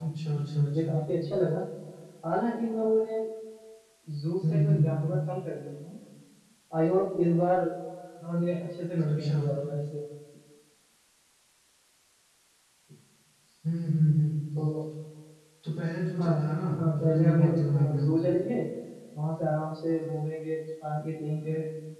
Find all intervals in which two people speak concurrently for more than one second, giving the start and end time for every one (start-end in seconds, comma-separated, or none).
16.8-18.0